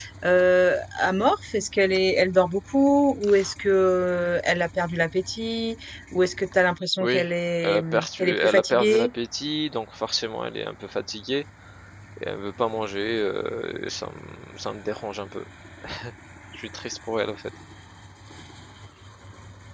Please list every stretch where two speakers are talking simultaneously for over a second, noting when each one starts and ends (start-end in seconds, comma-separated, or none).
7.6-9.1